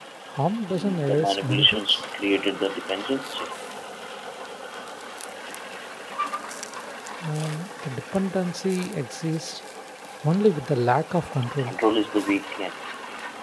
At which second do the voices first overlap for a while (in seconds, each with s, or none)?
0.8 s